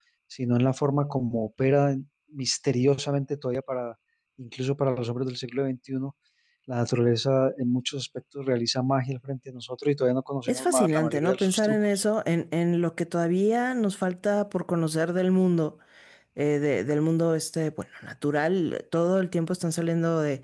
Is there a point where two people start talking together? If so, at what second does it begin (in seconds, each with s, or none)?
10.5 s